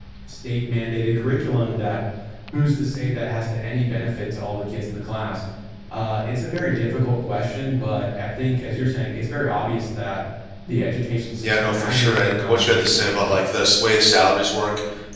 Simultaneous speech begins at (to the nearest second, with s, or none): 11 s